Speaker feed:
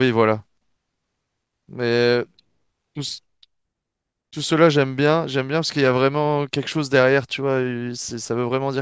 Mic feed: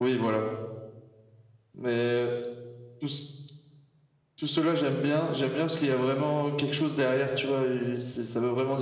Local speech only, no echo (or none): none